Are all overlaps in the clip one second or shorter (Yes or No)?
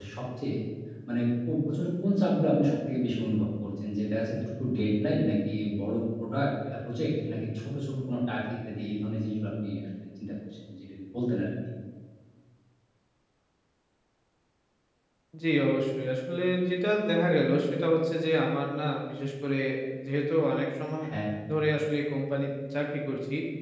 Yes